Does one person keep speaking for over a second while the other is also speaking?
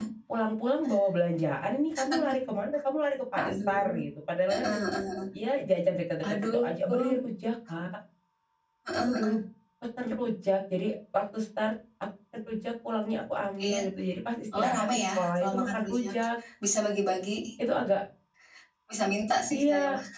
Yes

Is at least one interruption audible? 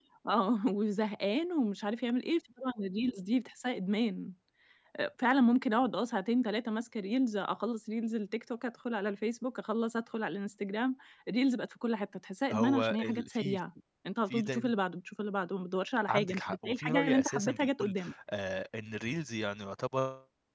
Yes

